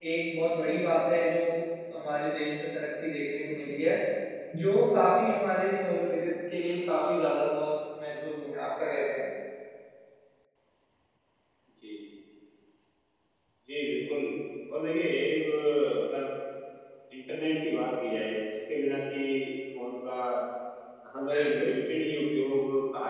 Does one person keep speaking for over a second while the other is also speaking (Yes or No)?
No